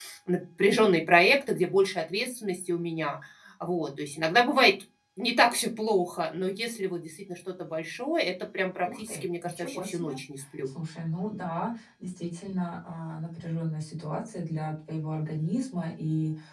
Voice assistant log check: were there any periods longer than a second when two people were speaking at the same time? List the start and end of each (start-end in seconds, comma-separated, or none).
8.8-10.2